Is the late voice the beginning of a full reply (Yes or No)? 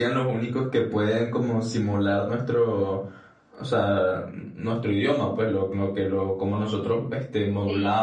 No